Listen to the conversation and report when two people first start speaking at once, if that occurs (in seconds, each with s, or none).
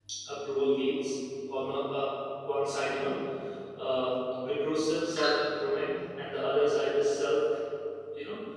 none